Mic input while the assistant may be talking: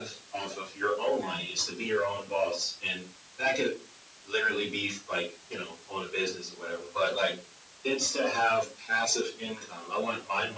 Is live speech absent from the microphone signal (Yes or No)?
No